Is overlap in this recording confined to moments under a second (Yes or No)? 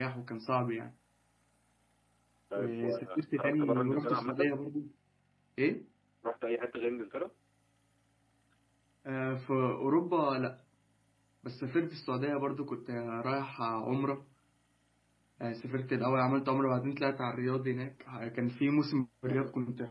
No